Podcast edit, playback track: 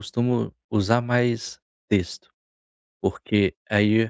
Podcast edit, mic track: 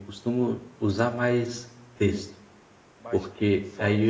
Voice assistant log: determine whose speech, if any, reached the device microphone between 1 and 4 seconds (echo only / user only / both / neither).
both